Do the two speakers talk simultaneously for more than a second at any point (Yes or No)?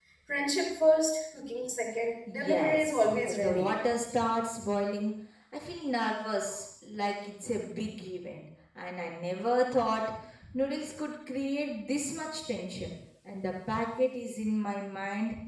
Yes